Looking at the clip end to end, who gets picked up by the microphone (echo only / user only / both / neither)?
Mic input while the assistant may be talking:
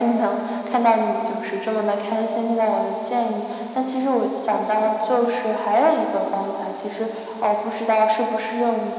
echo only